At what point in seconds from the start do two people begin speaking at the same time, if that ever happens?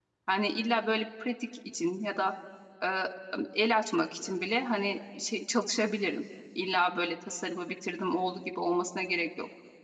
none

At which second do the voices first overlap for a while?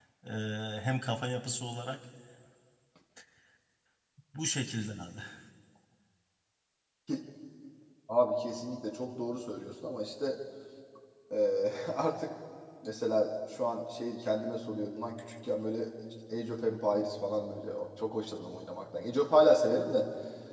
none

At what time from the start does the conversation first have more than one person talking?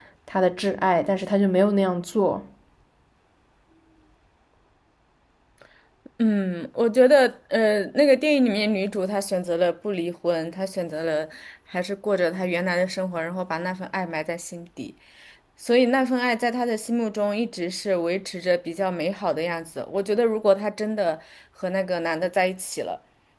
none

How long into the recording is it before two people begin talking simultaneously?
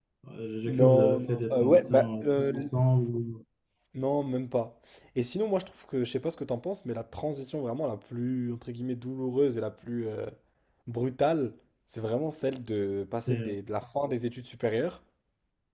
0.7 s

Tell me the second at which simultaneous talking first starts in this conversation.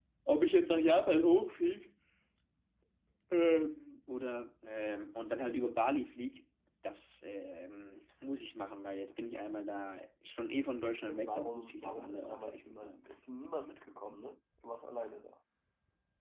11.1 s

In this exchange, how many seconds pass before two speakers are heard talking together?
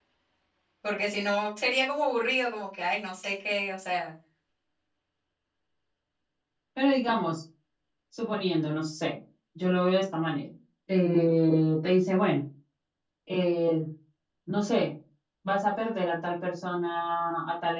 none

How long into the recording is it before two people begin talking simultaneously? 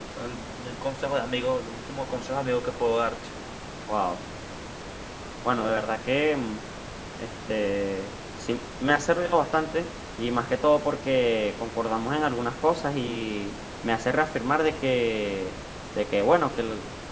none

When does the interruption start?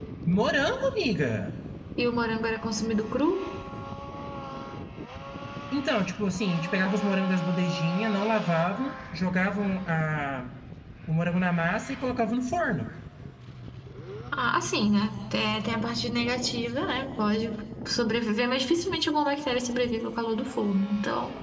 none

